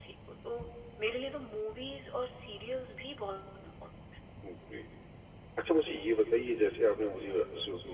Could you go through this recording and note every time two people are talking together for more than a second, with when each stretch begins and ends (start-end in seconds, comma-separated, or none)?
none